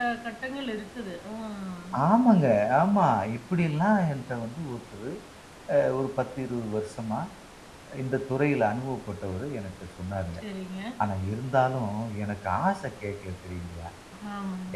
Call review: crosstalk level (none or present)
none